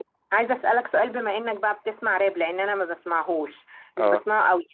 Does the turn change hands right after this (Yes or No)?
No